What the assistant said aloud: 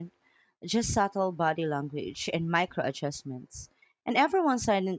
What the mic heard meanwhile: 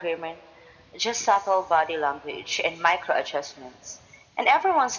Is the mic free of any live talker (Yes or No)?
Yes